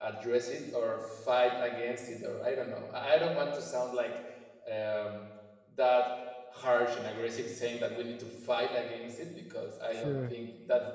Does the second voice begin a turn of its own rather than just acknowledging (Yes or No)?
No